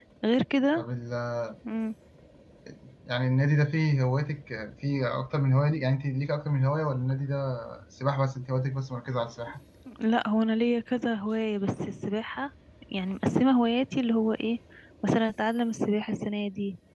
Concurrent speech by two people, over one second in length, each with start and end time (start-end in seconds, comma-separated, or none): none